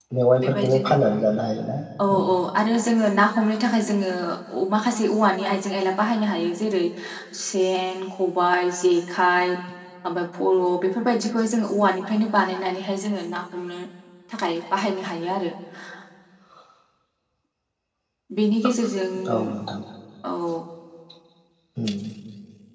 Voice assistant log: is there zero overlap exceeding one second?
Yes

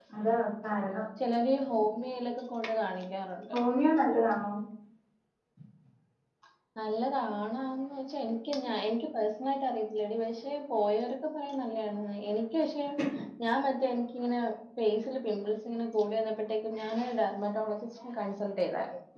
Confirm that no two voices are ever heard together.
Yes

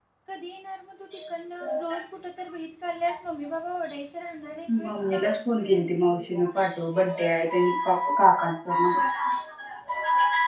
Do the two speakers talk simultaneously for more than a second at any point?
No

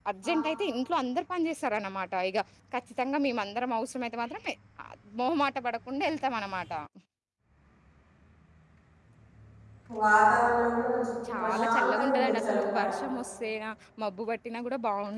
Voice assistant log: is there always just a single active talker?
No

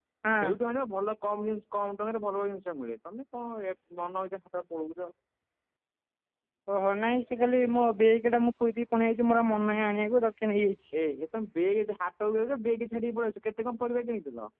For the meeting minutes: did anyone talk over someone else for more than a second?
No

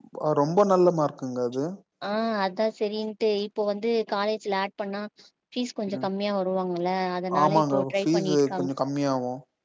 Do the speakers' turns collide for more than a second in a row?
Yes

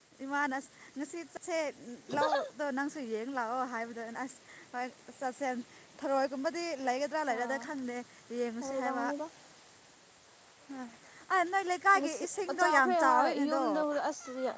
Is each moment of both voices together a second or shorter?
No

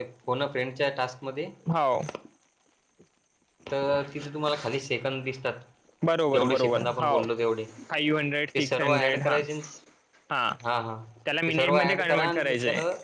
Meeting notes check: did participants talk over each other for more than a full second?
Yes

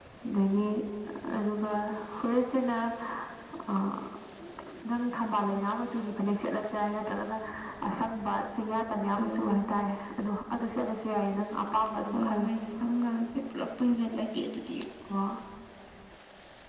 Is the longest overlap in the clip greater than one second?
No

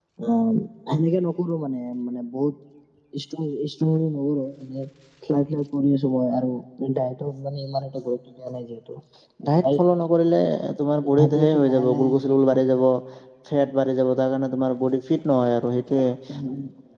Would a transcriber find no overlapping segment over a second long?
No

